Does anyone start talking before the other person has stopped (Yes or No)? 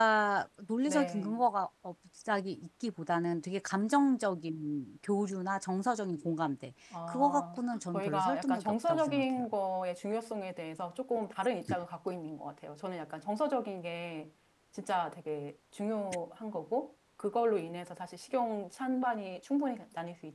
Yes